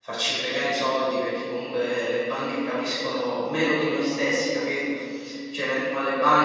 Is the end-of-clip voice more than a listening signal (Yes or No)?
No